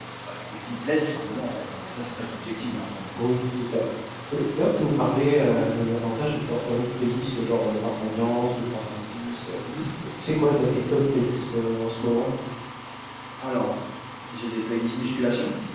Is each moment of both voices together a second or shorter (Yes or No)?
Yes